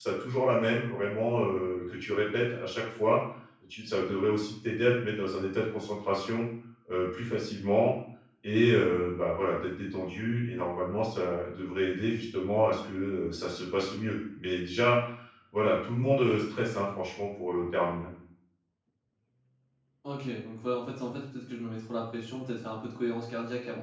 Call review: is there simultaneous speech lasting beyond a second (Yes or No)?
No